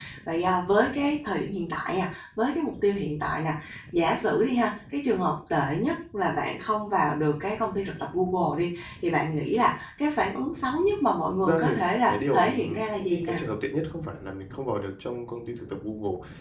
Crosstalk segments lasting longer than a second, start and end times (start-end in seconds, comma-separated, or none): 12.1-13.4